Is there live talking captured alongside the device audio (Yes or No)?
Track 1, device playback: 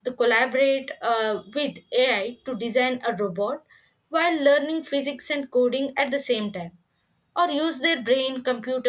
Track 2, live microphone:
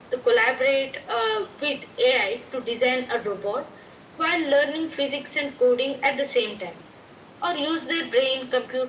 No